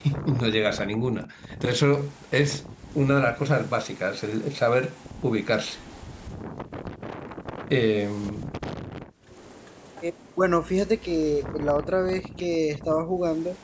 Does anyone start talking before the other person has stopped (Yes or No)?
No